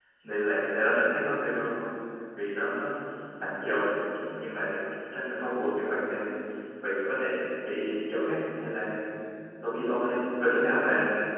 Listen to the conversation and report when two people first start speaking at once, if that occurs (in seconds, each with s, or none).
none